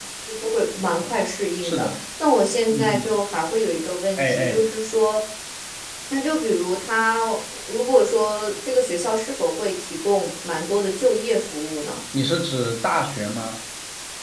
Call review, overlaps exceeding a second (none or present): none